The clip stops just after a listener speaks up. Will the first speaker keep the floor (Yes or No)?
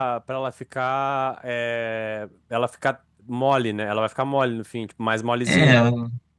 No